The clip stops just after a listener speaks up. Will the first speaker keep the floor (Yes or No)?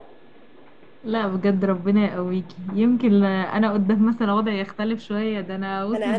No